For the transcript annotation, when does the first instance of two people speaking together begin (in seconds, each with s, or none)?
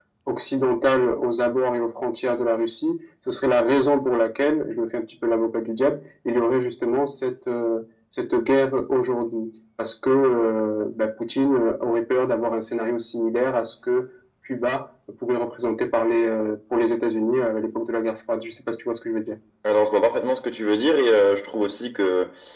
none